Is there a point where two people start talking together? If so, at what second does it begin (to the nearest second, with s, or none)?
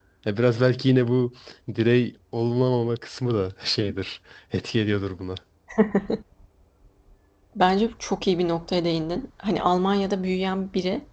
none